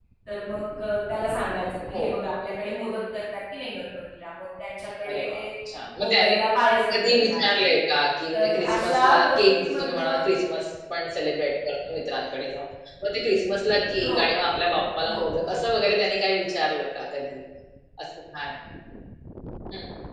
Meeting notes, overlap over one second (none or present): present